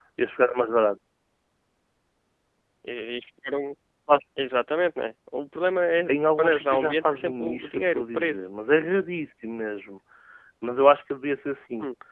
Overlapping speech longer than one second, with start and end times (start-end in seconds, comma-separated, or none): 6.1-8.5